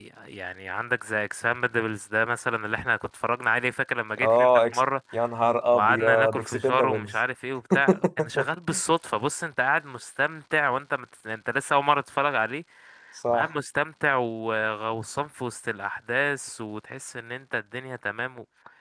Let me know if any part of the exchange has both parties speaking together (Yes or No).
Yes